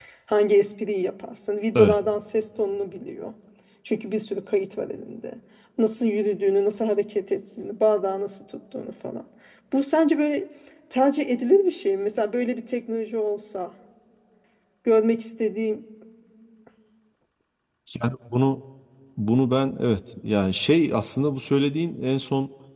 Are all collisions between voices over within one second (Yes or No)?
Yes